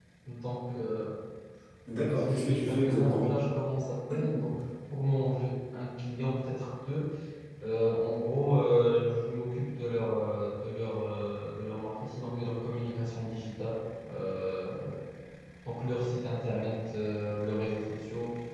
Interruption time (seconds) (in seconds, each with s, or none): 2.1 s